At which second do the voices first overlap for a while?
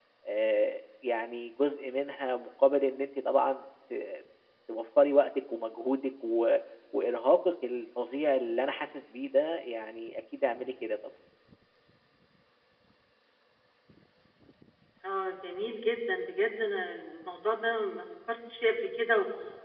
none

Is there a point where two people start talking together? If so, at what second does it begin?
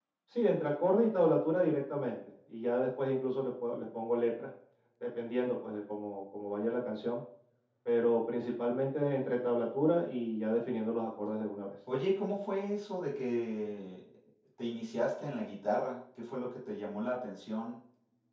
none

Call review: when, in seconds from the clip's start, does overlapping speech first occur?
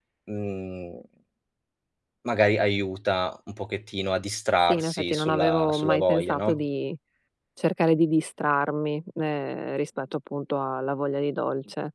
4.7 s

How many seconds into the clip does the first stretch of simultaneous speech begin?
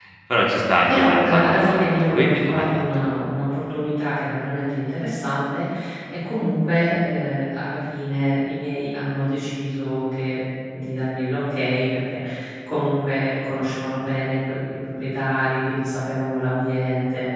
0.9 s

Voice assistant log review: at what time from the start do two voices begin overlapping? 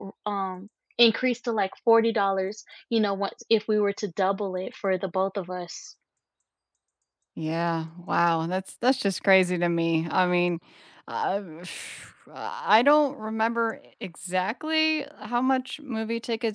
none

